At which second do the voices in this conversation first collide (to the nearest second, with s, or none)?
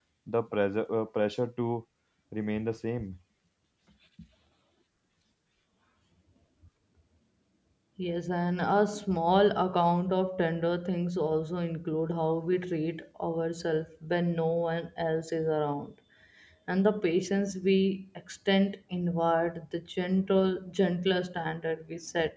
none